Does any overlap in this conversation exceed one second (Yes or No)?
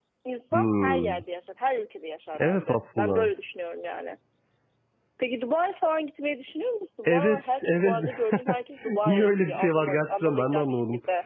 Yes